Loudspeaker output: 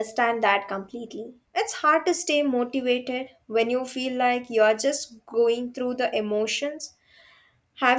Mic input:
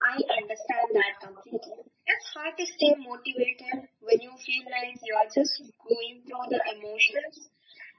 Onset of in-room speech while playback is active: none

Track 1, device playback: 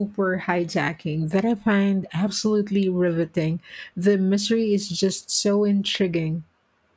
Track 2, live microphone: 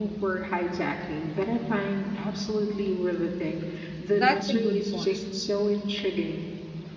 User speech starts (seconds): 4.1 s

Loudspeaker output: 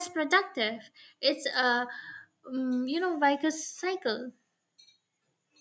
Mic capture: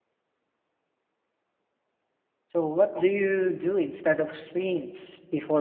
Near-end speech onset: 2.4 s

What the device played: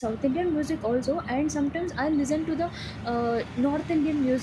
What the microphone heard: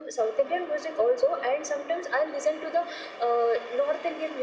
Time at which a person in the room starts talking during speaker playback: none

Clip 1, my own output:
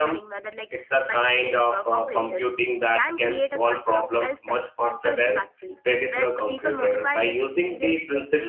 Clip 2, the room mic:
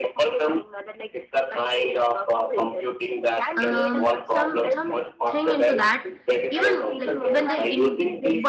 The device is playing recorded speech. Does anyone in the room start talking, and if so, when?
3.6 s

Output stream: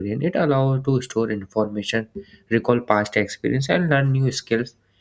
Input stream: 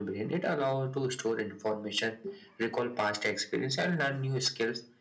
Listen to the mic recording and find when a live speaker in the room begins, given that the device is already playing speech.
none

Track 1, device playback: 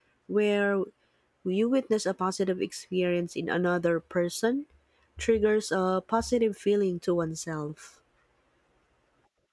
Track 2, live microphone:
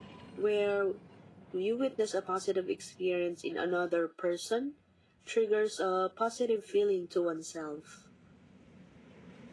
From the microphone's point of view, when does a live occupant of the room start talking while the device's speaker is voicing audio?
none

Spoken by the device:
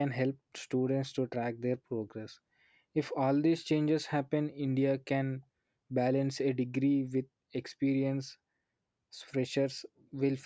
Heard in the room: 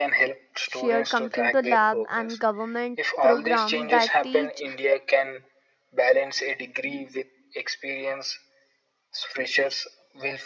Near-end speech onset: 0.7 s

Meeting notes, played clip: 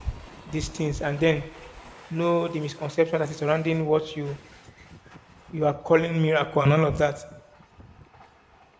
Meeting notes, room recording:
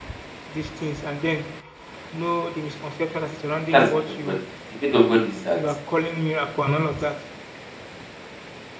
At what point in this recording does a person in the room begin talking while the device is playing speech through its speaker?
3.7 s

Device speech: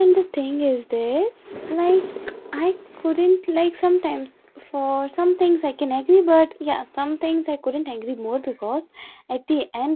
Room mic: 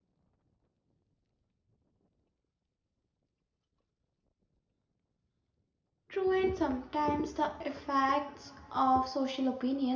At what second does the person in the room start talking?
6.1 s

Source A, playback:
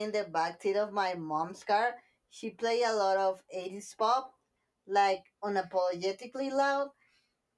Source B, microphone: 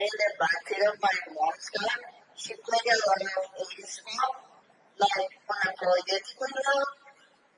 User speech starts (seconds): none

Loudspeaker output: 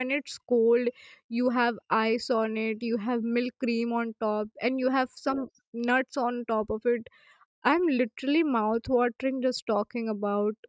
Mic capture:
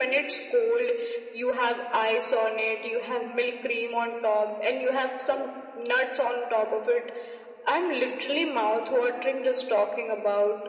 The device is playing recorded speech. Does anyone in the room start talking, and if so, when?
none

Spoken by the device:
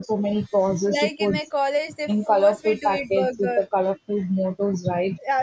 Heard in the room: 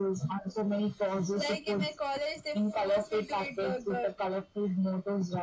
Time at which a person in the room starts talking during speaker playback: none

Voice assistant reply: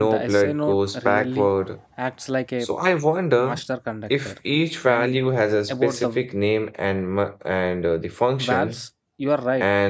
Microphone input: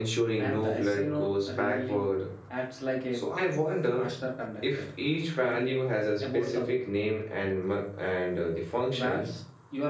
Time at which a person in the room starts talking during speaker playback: none

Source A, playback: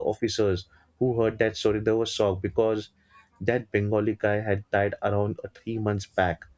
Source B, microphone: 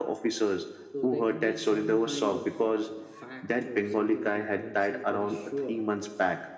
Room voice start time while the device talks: 0.9 s

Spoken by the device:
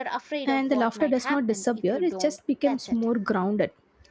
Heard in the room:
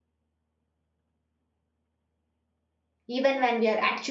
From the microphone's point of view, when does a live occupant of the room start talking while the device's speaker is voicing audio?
3.0 s

